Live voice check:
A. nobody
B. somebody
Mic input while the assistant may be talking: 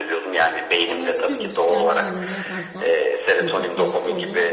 B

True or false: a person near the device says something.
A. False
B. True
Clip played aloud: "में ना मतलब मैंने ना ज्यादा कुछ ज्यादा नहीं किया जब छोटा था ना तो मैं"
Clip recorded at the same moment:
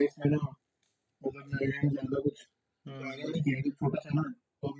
B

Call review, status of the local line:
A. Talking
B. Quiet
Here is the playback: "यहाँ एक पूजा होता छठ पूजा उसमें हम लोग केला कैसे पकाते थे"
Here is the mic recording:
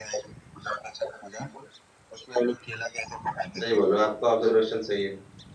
A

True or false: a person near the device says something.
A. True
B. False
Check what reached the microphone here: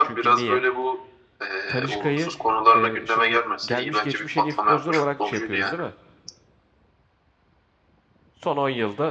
A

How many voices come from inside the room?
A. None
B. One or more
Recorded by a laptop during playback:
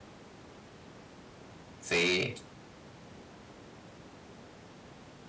B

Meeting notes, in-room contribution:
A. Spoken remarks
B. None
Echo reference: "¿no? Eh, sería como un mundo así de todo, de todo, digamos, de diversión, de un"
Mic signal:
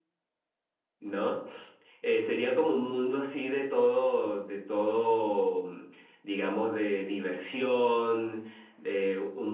B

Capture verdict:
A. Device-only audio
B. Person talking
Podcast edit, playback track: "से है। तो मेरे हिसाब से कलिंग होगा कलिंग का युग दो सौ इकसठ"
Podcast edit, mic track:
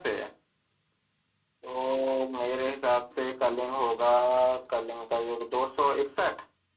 A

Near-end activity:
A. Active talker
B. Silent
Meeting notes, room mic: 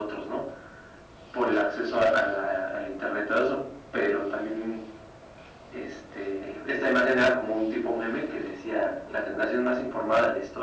B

